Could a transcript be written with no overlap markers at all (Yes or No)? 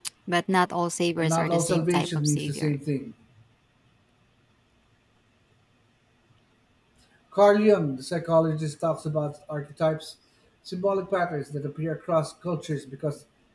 No